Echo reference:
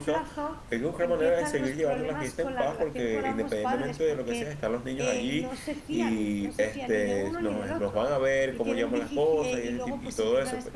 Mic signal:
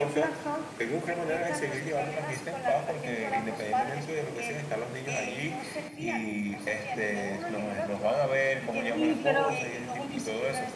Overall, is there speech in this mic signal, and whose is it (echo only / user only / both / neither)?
both